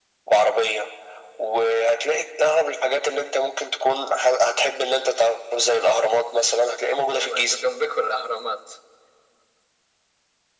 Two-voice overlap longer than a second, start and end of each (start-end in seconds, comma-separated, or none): none